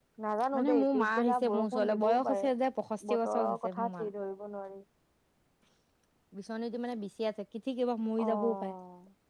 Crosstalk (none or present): present